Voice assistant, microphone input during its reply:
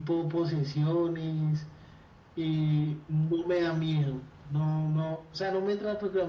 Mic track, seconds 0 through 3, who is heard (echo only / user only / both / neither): echo only